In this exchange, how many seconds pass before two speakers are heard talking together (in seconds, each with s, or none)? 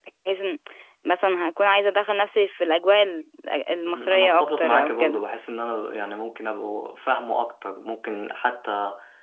3.8 s